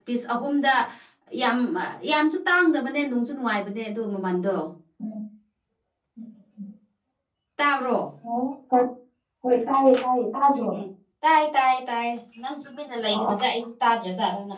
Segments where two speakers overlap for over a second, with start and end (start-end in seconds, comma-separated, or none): none